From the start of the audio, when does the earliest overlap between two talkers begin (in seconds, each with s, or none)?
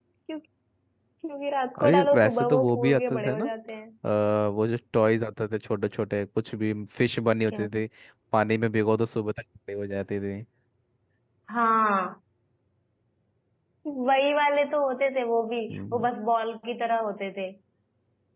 1.8 s